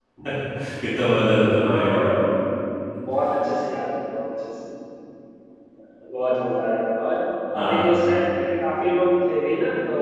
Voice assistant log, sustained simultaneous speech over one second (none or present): none